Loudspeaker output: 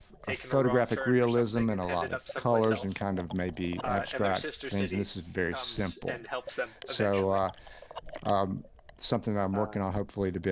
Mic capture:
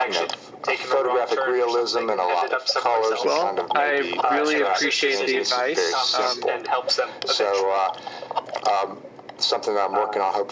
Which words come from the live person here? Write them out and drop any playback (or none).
Well, I really appreciate the advice. Um,